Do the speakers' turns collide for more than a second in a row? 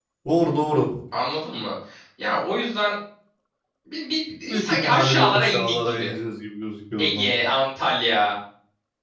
Yes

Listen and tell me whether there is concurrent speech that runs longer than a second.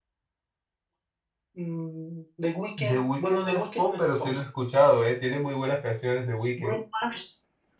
Yes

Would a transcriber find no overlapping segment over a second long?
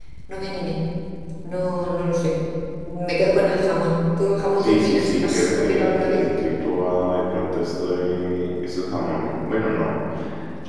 No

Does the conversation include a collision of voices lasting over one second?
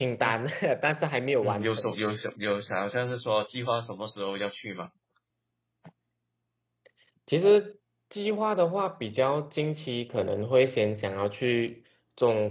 No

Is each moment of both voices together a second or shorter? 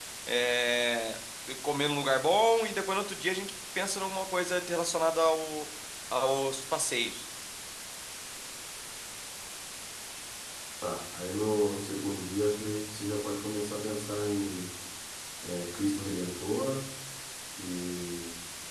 Yes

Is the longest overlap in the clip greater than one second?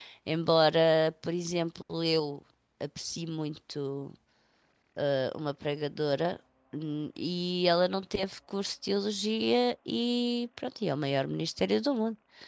No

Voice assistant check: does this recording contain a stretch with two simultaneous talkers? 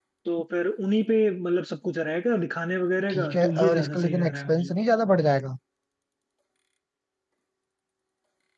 Yes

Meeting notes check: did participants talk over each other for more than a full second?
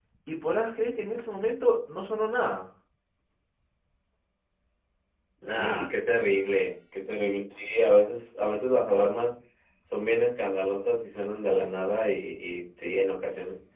No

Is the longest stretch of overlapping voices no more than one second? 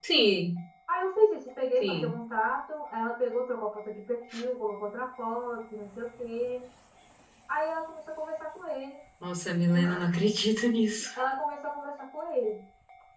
Yes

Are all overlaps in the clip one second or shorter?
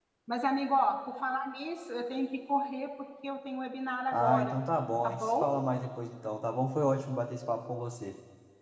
Yes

